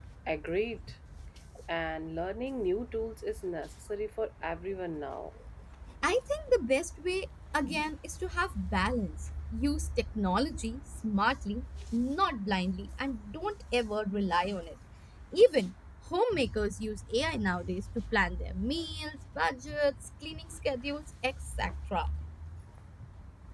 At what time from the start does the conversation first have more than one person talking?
none

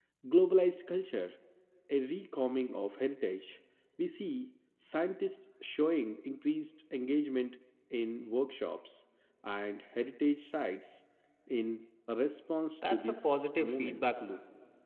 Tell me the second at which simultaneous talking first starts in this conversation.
12.8 s

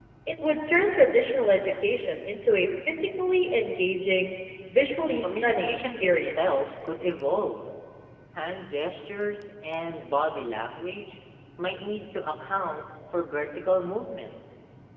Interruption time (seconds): 5.2 s

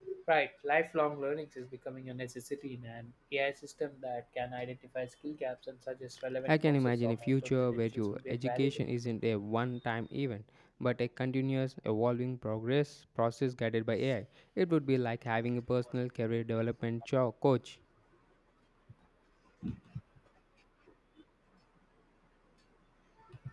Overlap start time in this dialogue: 6.5 s

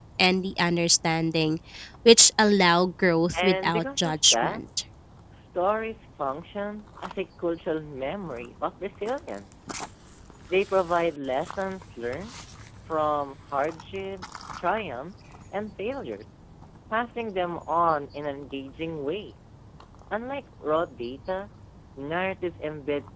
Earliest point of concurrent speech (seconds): 3.3 s

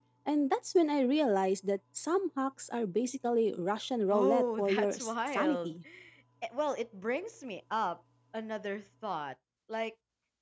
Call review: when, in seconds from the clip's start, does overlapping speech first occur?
4.1 s

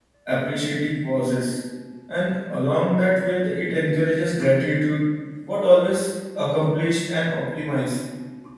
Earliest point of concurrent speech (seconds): none

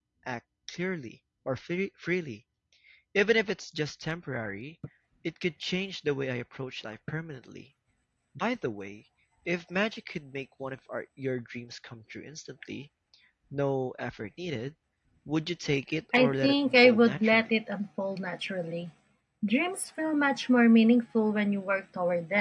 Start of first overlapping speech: 16.1 s

